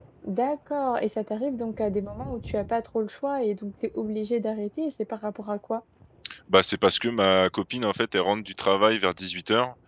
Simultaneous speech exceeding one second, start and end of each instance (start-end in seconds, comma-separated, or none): none